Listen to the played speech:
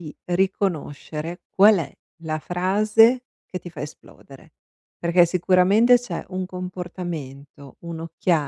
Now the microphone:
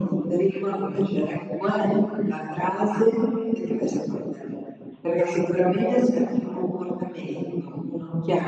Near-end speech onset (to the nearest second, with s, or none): none